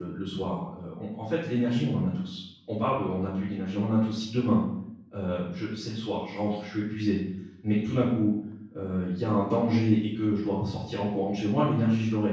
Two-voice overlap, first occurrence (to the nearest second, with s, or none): none